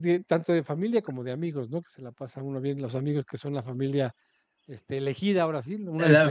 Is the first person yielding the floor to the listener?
Yes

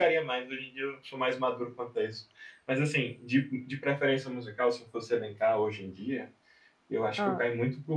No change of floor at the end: Yes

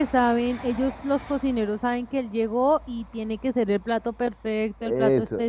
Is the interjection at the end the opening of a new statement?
Yes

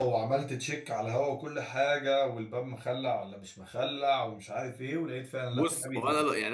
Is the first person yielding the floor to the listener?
Yes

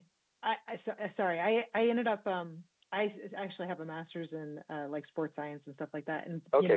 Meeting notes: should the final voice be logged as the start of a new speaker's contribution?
No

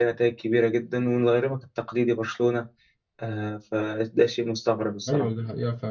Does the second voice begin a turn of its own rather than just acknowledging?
Yes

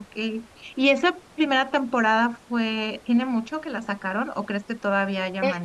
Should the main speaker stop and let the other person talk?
Yes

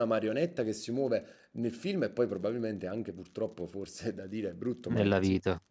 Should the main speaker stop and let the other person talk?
No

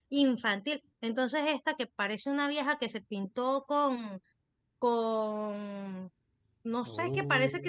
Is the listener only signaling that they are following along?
Yes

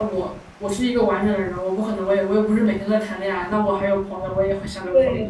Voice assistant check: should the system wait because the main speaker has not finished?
No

